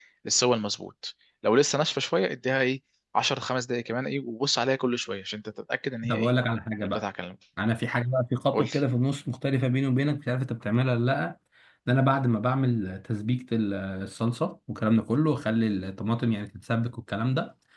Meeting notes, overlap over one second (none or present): none